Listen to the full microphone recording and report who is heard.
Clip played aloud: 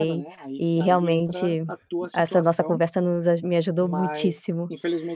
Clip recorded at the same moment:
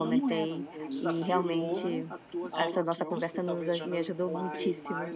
both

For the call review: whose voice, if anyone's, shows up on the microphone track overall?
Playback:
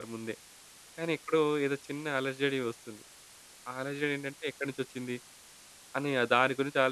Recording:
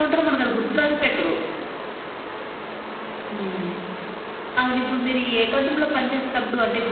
user only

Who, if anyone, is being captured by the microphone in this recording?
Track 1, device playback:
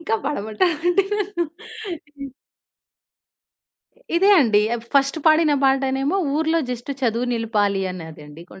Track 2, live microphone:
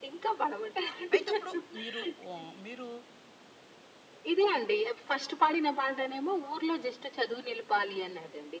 both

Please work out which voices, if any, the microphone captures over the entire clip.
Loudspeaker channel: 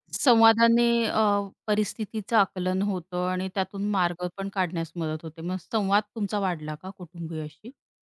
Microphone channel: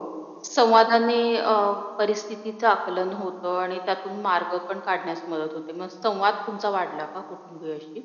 echo only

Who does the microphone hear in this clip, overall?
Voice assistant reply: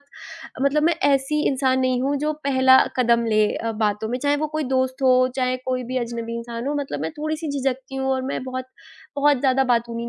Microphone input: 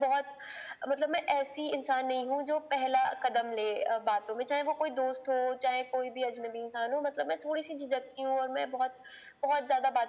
echo only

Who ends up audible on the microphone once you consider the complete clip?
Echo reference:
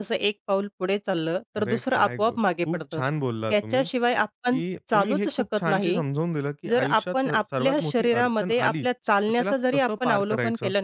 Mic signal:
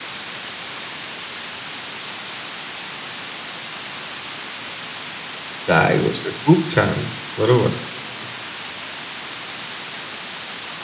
user only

